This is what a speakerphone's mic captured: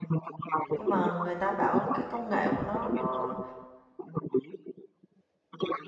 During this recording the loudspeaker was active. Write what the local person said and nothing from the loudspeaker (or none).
Nhưng mà người ta bảo cái công nghệ của nó nó